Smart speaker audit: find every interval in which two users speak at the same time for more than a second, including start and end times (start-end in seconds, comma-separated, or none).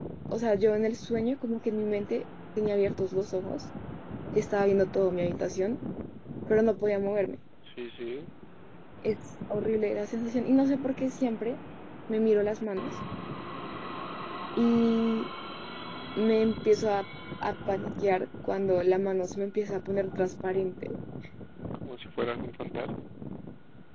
none